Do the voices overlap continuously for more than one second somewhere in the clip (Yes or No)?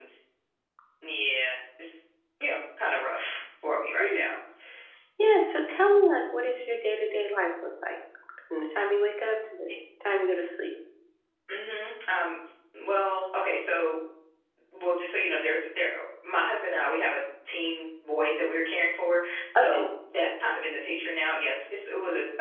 No